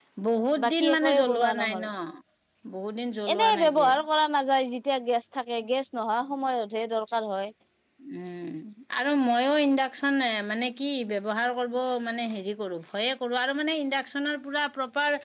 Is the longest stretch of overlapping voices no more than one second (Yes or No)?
No